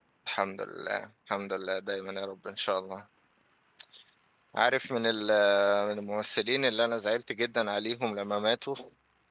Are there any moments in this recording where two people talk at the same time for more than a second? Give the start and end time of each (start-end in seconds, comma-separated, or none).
none